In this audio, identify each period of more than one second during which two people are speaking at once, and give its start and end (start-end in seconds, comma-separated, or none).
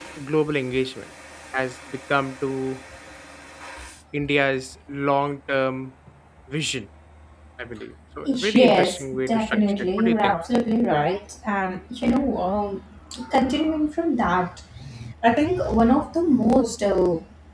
8.2-10.4